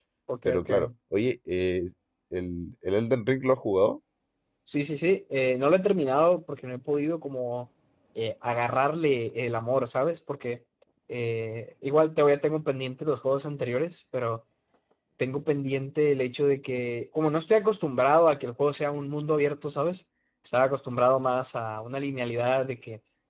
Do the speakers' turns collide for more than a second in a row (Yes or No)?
No